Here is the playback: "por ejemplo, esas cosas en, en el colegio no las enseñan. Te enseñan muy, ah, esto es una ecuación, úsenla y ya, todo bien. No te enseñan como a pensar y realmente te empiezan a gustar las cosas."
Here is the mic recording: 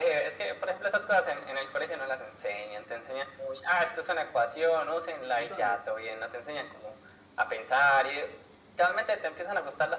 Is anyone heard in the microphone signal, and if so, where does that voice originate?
both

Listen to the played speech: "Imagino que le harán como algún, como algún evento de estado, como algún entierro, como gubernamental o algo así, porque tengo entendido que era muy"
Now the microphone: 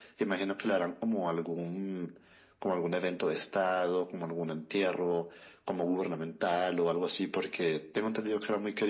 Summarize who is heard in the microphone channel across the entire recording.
echo only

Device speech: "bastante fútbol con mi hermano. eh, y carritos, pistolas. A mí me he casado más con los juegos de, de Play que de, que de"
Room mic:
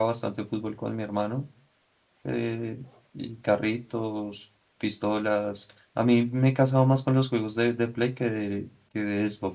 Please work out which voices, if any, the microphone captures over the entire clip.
echo only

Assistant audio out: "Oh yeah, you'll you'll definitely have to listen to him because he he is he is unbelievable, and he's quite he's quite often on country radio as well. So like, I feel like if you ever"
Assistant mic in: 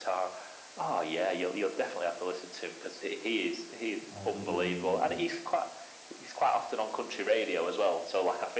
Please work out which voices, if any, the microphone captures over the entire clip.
both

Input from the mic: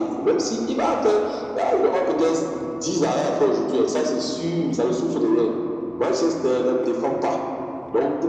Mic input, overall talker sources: echo only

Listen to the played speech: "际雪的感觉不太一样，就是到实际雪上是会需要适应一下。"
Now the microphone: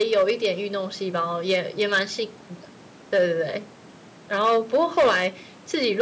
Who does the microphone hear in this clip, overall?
user only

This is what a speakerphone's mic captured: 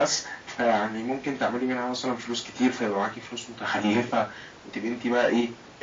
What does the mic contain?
echo only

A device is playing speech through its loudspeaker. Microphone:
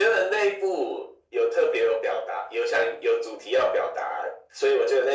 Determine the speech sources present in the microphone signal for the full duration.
echo only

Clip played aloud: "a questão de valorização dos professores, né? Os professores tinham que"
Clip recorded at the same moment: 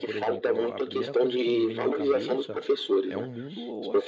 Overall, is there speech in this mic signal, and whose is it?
both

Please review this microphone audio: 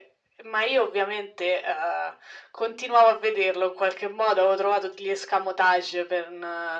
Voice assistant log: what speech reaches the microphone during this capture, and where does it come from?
echo only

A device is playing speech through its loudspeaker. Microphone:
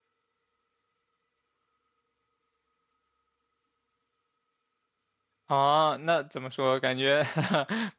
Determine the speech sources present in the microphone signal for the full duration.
user only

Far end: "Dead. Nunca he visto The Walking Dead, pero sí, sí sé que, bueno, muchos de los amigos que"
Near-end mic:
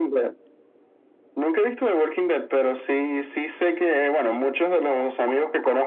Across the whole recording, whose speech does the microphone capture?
echo only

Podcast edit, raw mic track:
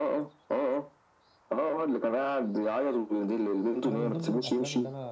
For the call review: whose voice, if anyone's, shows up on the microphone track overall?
both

